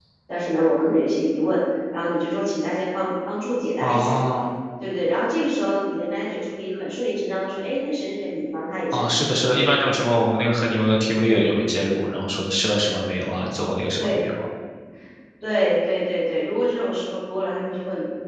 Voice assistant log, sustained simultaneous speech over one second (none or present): none